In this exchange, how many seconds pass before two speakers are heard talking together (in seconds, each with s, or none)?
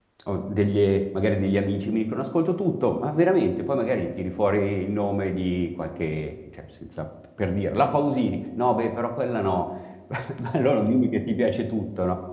none